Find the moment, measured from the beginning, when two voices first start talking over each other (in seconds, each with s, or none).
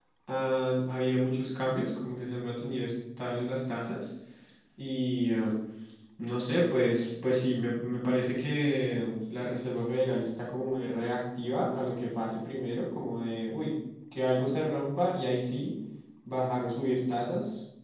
none